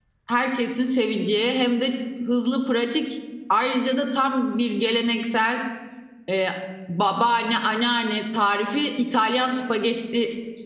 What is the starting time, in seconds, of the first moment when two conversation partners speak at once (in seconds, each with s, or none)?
none